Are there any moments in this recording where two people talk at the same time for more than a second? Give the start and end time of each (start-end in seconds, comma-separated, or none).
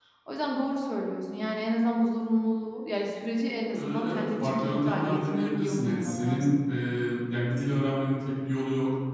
3.7-6.6